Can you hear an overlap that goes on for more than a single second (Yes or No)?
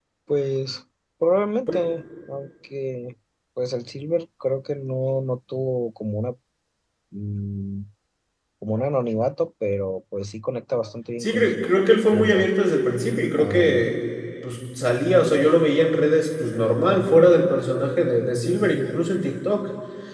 No